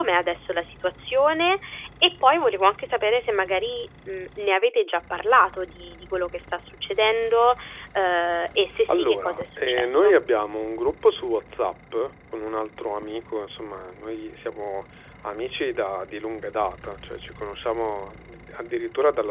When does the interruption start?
8.9 s

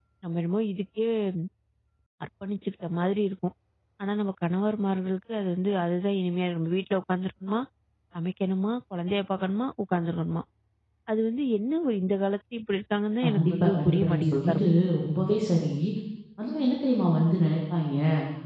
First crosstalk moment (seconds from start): 13.2 s

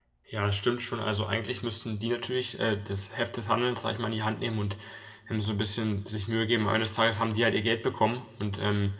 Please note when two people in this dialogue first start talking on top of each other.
none

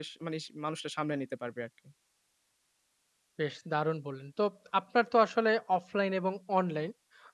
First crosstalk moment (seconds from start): none

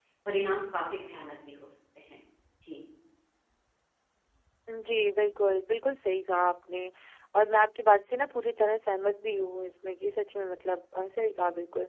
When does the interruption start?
none

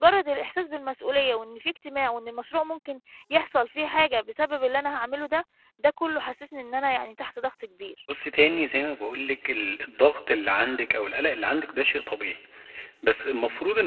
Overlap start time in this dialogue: none

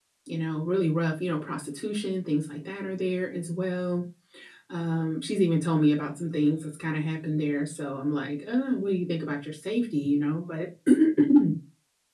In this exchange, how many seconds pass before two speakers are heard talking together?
none

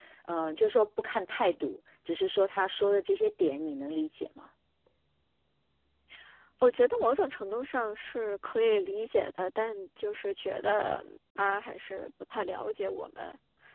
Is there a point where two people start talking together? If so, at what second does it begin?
none

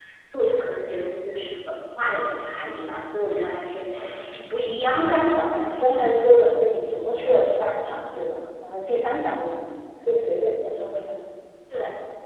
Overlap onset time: 4.9 s

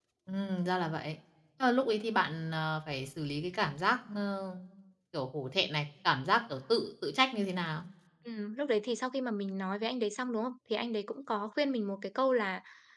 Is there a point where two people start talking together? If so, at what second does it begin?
none

